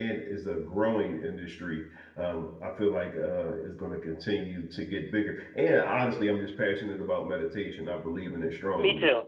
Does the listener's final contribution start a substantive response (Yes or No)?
Yes